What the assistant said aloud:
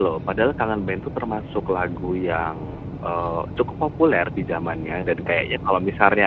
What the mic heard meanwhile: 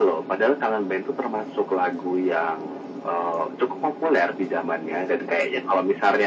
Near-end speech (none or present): none